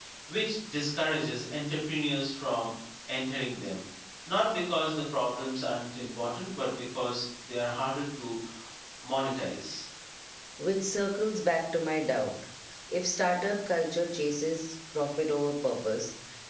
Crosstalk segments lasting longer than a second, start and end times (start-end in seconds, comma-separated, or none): none